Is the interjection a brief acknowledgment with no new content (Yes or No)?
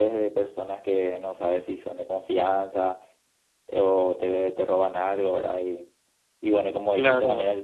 Yes